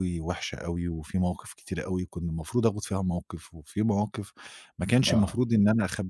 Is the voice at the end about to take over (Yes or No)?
No